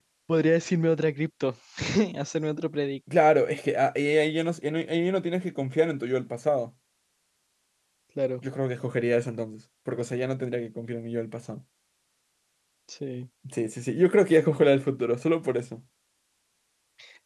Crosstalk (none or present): none